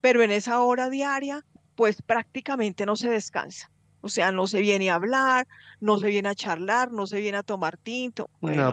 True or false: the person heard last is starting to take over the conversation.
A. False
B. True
B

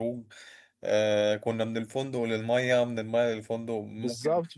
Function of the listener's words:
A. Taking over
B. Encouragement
A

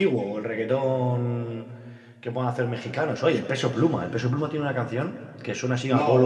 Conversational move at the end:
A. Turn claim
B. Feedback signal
B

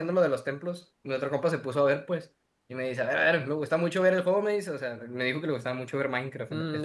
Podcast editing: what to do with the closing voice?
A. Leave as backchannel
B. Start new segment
B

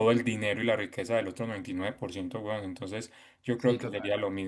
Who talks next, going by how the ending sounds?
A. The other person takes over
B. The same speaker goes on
B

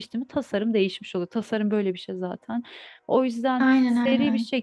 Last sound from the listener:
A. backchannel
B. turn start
A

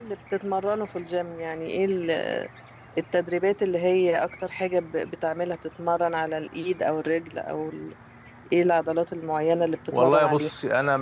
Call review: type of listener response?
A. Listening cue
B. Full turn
B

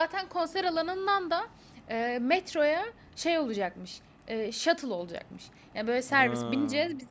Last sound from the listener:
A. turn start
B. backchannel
B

